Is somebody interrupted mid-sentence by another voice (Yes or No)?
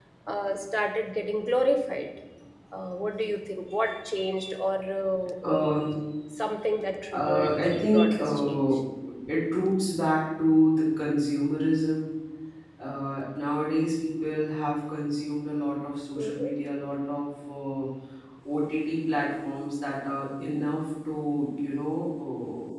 Yes